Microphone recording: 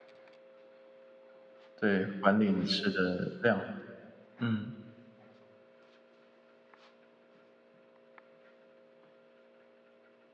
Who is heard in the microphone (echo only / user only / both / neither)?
user only